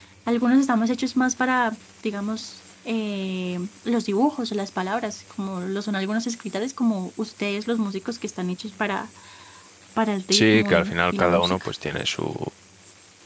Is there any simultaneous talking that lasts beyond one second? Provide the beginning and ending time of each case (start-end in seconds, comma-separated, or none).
10.3-11.7